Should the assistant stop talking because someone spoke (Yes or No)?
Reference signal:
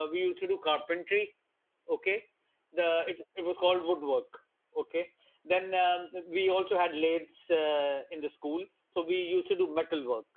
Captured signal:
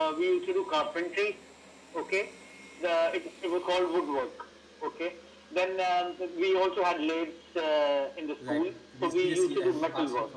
Yes